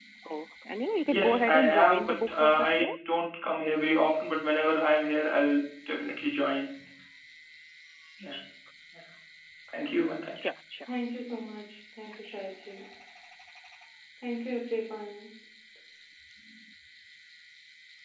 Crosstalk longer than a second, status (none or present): present